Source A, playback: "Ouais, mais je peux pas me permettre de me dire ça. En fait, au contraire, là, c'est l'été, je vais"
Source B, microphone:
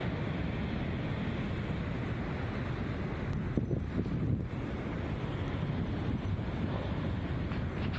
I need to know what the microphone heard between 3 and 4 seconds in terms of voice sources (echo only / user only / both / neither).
neither